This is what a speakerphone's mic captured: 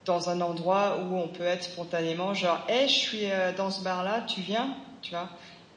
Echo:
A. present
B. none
B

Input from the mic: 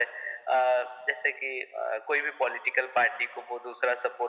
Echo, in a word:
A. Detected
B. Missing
A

